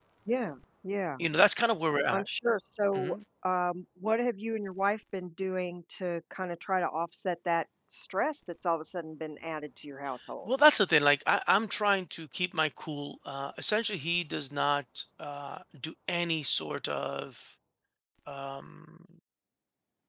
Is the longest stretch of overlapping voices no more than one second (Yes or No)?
Yes